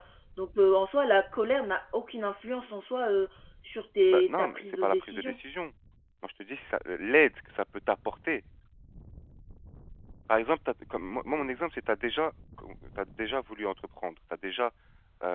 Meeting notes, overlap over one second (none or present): present